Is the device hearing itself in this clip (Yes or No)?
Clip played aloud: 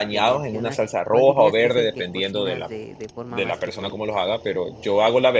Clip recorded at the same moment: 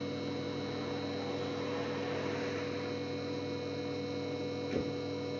No